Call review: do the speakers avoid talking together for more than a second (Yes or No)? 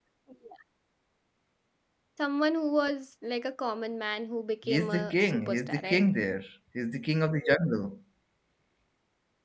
No